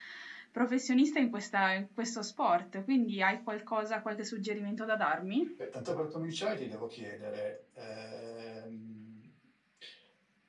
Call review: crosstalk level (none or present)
none